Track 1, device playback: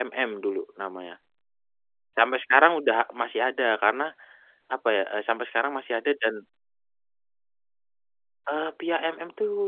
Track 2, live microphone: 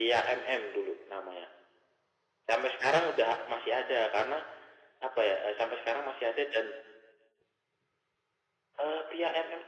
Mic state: echo only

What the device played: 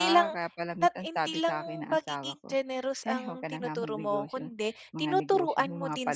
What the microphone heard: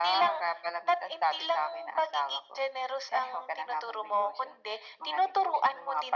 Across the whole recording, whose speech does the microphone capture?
echo only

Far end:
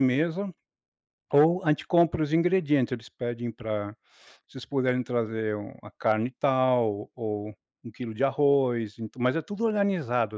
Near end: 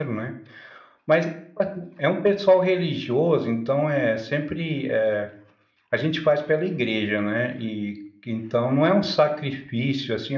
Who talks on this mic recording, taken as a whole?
user only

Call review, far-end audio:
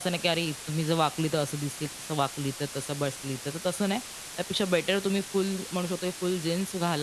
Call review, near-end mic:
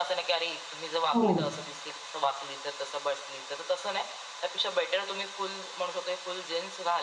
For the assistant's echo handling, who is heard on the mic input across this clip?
both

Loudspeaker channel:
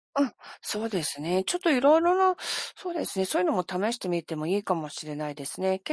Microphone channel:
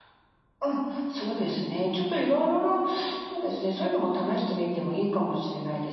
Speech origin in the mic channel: echo only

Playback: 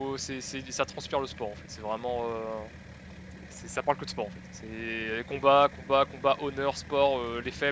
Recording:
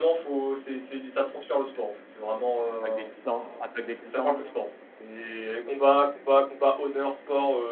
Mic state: both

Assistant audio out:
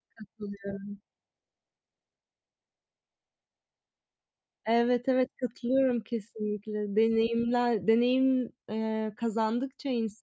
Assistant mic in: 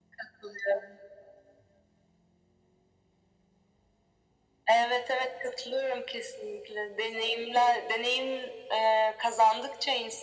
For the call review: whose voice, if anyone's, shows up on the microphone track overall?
echo only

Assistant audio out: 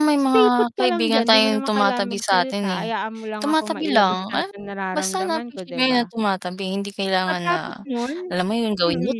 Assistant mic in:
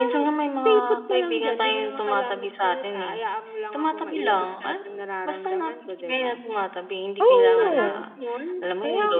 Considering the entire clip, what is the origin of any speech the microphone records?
both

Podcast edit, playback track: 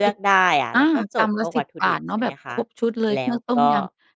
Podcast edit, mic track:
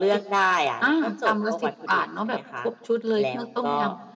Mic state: echo only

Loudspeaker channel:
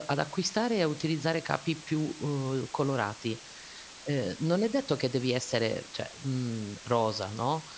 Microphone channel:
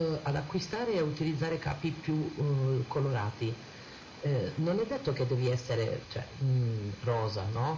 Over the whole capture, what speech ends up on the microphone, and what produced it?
echo only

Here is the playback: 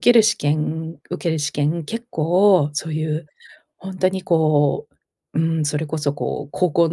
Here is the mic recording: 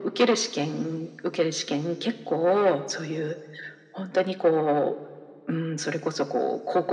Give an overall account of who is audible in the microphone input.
echo only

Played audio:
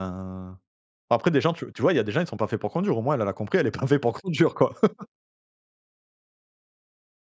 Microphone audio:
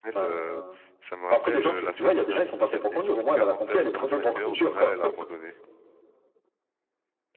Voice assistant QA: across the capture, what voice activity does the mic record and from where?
both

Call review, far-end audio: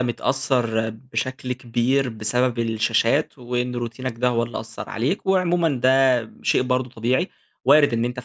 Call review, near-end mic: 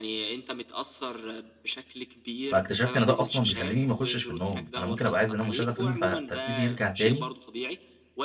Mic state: both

